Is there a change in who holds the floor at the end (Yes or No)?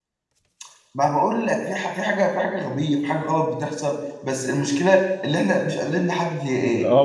Yes